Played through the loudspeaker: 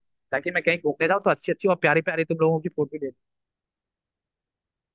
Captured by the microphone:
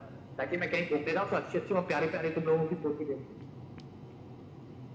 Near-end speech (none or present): none